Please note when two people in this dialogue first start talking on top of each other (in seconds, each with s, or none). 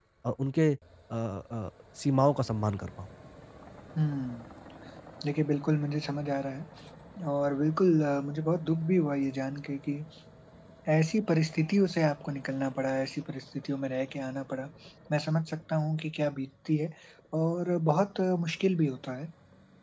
none